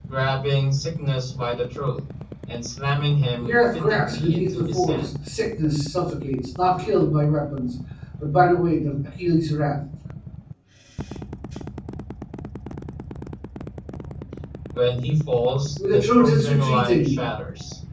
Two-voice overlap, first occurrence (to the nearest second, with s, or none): 3 s